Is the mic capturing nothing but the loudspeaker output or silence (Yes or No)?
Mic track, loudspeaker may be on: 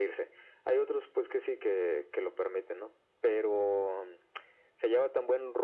Yes